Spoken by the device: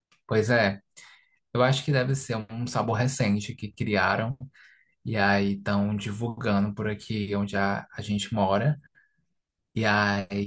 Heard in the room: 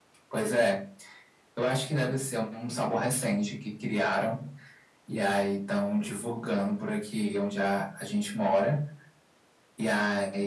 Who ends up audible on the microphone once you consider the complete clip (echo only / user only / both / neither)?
echo only